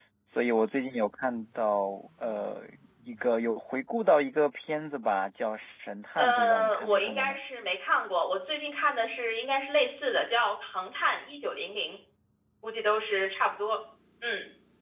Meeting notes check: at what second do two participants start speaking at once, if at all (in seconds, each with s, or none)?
6.2 s